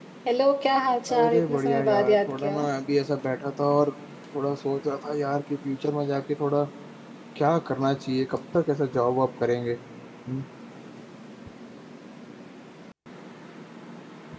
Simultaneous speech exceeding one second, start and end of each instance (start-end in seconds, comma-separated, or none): 1.1-2.6